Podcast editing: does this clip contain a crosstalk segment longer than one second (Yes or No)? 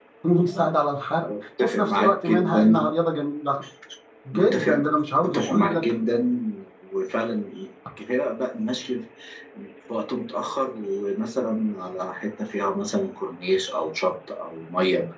Yes